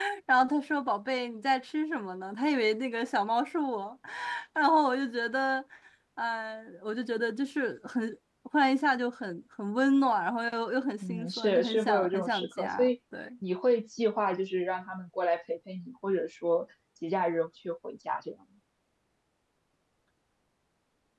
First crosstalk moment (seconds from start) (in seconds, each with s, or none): 11.0 s